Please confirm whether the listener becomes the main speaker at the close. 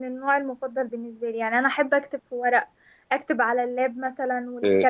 Yes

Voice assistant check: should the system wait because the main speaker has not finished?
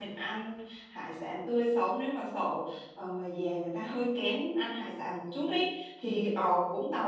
Yes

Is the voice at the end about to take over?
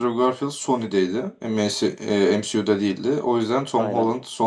No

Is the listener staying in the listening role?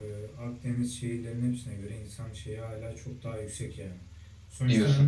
Yes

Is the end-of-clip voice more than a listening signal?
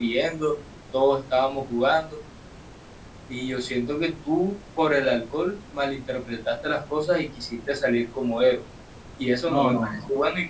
Yes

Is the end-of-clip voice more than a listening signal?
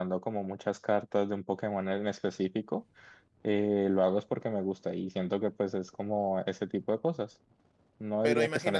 Yes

